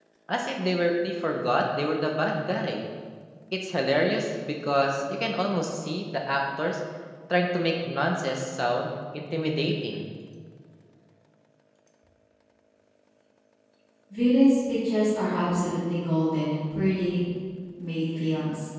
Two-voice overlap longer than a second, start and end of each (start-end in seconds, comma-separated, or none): none